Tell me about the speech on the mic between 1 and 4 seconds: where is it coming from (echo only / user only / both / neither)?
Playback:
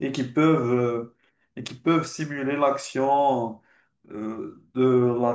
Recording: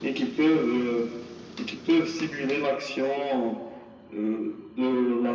echo only